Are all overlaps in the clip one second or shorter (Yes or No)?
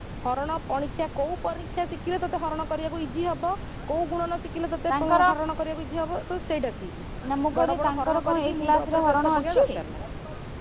No